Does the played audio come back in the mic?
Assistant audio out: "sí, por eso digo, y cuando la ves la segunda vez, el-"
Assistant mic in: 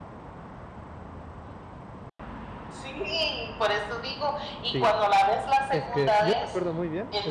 Yes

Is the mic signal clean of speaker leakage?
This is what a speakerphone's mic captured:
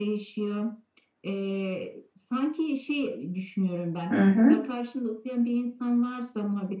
No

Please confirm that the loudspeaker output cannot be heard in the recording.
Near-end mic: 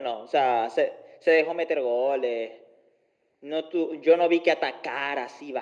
No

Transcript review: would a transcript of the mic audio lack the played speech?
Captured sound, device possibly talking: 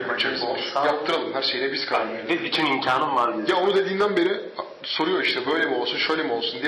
No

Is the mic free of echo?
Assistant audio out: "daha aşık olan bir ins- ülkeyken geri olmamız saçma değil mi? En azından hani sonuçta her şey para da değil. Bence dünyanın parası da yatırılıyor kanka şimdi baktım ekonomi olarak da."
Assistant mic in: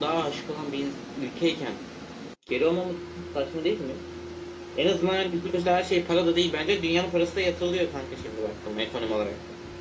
No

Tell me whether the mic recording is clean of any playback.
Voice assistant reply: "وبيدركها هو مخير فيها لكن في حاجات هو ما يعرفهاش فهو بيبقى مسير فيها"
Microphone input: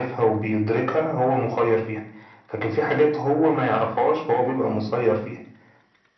No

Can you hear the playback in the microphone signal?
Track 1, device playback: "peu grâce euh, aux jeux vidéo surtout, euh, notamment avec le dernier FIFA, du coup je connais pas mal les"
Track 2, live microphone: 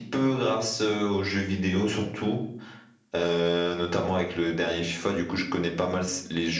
Yes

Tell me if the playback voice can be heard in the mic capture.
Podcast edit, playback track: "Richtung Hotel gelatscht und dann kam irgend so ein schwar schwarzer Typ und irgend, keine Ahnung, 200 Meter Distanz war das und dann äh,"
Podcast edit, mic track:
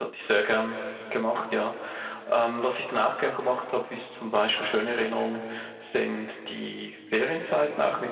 No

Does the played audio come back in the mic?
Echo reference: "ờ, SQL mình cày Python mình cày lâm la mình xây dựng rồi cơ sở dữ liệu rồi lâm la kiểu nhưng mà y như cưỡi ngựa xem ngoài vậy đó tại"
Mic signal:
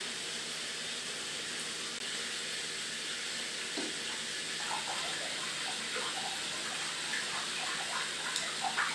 No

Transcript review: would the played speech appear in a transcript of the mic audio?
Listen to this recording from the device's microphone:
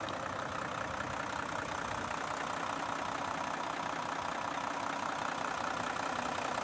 No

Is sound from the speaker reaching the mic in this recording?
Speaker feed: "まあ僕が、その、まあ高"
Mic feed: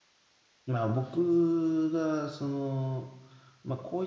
Yes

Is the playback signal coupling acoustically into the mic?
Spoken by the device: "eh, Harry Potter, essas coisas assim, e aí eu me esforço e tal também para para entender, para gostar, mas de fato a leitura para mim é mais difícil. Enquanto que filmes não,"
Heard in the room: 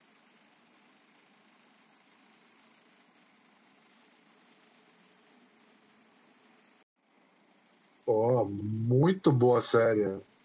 No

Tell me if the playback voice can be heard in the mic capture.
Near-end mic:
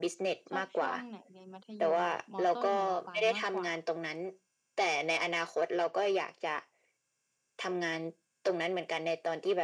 Yes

